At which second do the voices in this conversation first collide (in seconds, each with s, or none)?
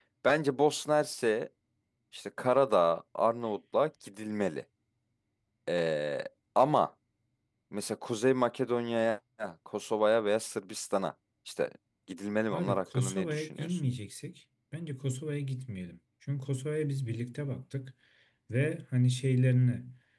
12.5 s